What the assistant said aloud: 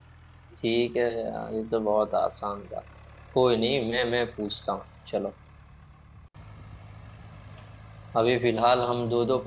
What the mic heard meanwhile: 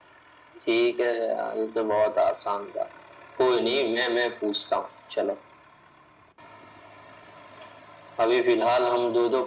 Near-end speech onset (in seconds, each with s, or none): none